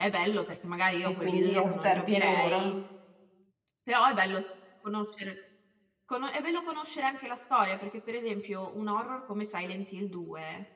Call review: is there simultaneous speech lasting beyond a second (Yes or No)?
Yes